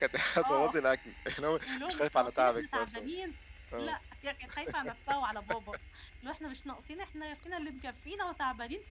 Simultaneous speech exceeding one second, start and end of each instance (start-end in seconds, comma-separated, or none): 1.7-3.1